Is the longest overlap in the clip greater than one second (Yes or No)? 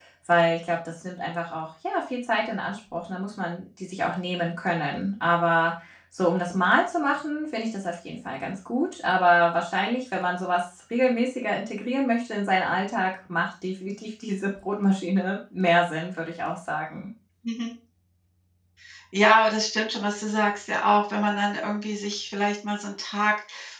No